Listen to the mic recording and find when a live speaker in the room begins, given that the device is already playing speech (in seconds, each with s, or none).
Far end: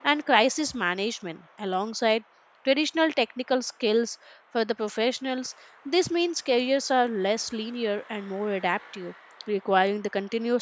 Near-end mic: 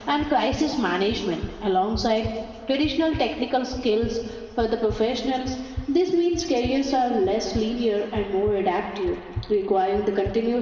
none